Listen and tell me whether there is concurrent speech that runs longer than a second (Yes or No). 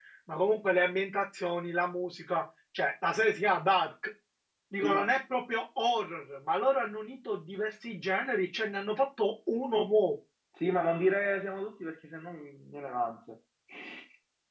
No